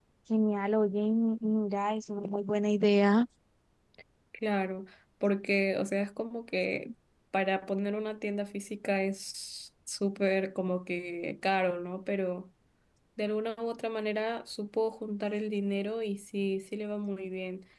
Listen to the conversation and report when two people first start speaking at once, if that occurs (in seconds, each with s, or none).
none